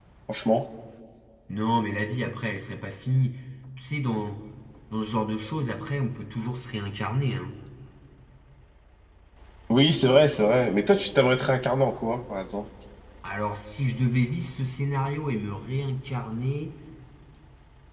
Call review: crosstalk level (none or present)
none